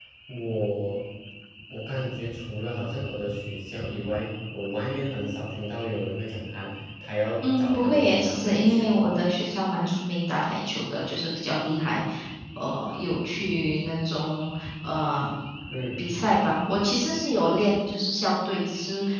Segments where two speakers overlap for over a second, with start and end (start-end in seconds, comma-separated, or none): 7.4-9.2